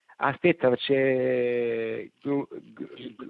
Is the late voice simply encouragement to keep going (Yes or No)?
No